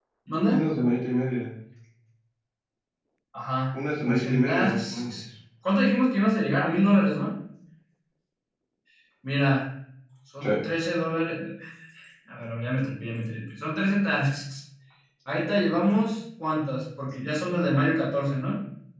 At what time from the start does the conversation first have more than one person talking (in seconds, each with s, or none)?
4.0 s